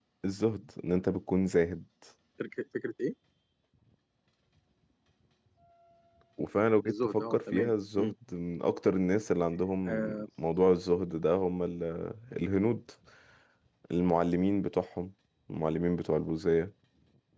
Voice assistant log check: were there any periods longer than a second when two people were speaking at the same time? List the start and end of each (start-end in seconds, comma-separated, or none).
6.8-8.1